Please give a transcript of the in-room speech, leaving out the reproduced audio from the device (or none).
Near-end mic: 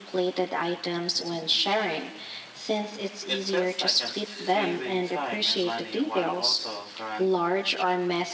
It feels like I'm saving time and money while also guaran-